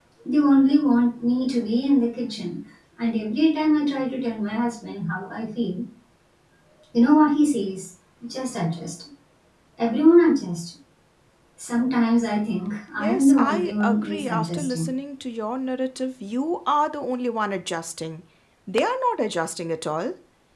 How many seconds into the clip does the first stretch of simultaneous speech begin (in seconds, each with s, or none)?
13.0 s